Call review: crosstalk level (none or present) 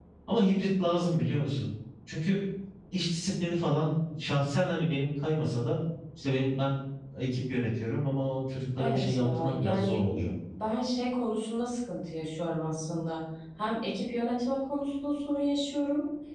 present